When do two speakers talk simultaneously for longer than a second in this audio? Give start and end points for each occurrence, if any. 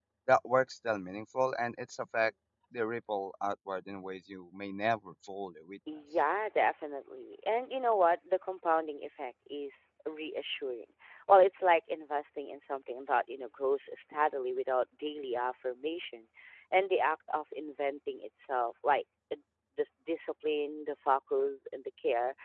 none

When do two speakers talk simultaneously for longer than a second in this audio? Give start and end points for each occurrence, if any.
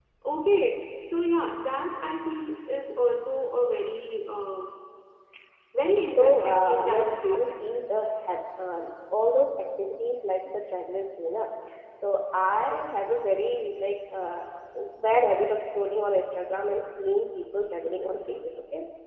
5.9-7.7

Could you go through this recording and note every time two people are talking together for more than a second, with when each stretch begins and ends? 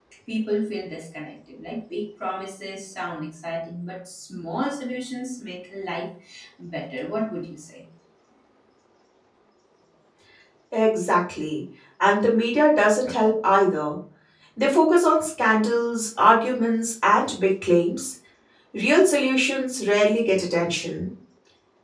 none

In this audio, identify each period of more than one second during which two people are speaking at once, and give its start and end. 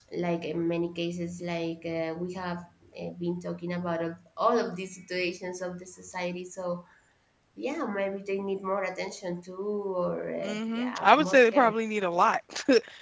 10.4-11.7

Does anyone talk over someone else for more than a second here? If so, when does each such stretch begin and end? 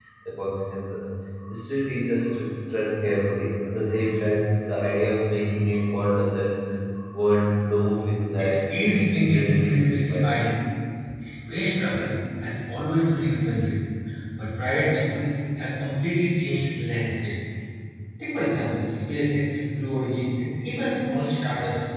8.4-10.4

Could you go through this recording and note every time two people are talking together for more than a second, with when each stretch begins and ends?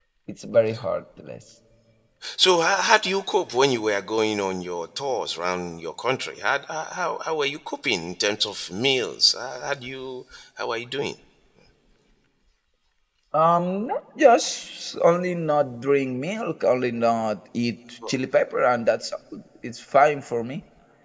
none

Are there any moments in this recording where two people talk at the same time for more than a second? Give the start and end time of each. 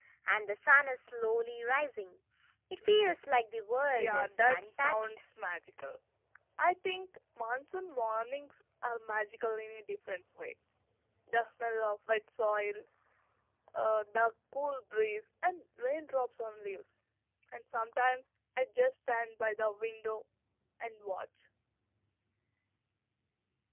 3.9-5.1

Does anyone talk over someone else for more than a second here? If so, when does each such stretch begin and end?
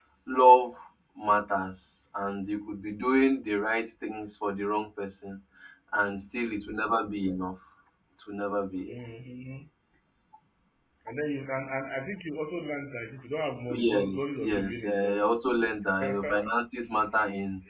13.7-15.2

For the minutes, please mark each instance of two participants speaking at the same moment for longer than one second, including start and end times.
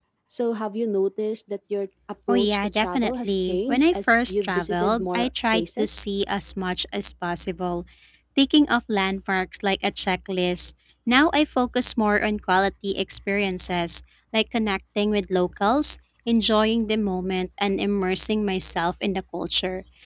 2.3-5.9

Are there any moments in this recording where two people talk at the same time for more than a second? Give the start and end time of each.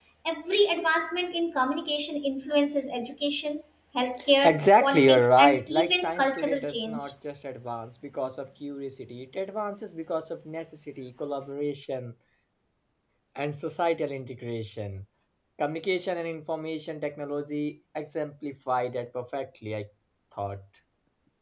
4.4-7.1

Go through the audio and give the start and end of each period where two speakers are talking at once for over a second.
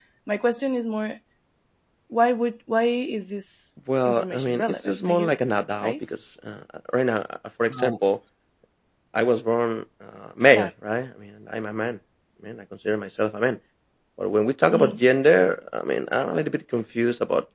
4.0-5.3

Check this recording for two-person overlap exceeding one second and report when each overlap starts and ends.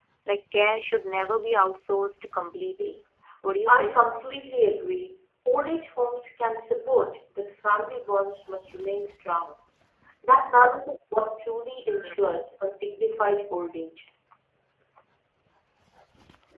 none

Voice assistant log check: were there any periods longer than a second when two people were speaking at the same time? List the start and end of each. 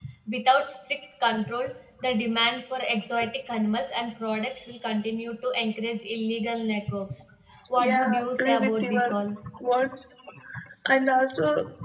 7.8-9.1

